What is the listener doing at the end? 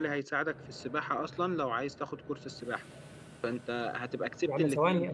taking over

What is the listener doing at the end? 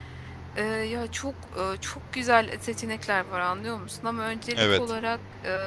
listening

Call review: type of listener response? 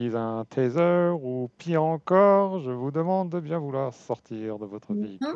taking over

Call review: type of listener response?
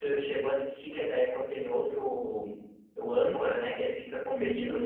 listening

